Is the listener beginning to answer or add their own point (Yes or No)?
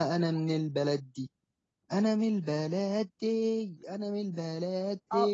Yes